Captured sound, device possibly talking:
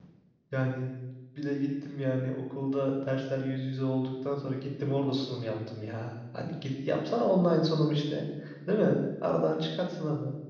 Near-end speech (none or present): present